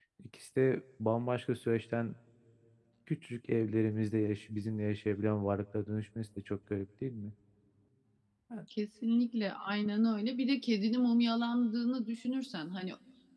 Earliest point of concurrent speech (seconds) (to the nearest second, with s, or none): none